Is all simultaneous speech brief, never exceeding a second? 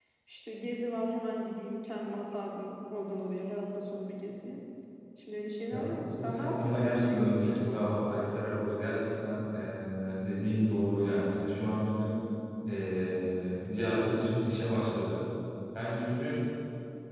No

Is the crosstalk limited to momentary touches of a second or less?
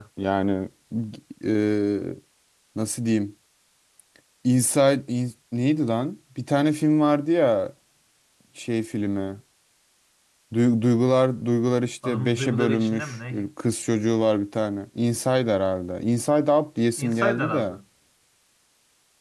No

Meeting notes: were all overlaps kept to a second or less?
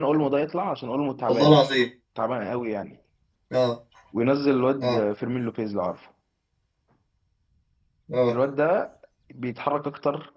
Yes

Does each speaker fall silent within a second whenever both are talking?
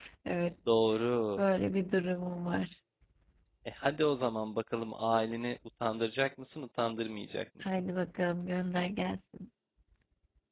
Yes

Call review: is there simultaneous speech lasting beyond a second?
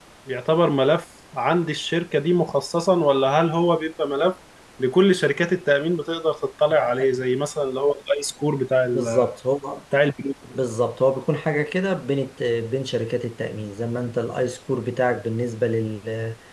No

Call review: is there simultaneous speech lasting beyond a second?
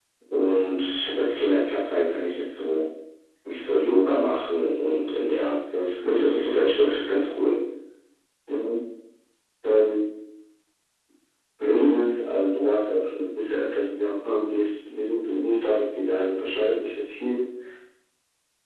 Yes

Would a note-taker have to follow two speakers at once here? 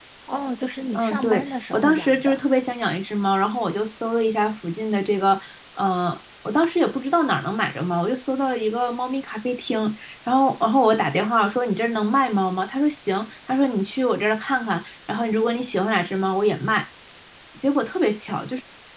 Yes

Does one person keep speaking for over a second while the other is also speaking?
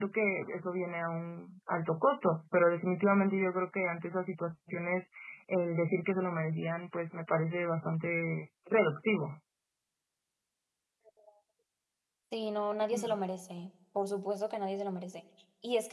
No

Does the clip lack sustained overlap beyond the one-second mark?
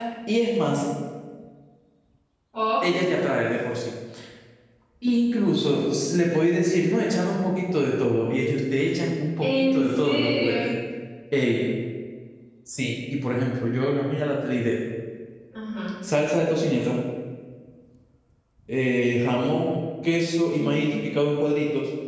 No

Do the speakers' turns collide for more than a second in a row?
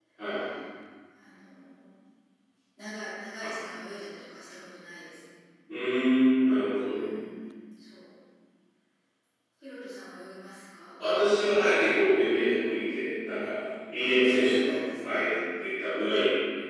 Yes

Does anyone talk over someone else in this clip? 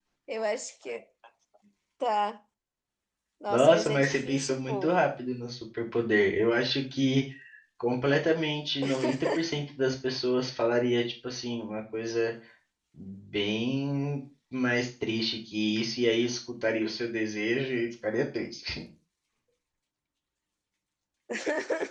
Yes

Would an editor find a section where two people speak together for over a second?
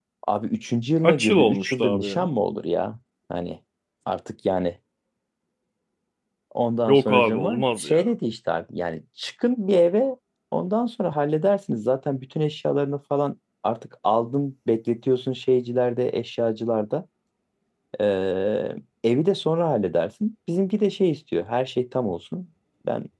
Yes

